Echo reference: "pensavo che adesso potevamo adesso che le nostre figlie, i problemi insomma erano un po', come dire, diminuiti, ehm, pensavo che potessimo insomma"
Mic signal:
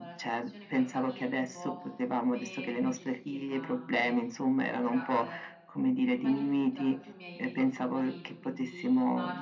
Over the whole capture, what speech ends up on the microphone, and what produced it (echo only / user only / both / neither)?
both